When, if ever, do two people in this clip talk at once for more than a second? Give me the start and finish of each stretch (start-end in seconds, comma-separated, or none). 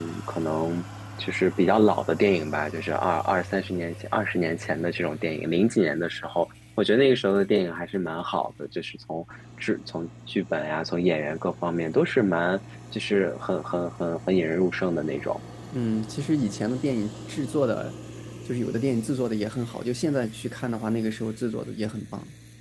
none